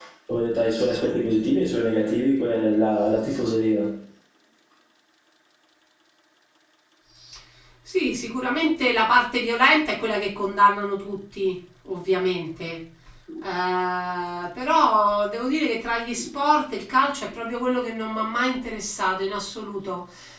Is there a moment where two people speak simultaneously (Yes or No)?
No